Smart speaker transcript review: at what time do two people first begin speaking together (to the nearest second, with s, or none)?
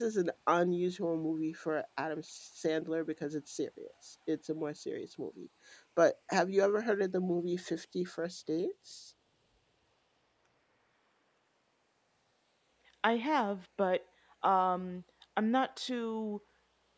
none